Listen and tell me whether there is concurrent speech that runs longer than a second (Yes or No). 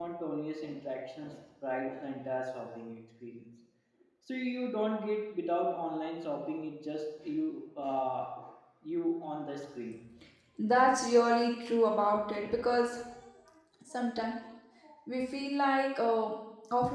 No